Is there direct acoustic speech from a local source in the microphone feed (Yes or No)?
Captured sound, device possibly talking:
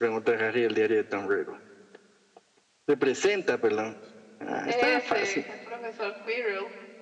Yes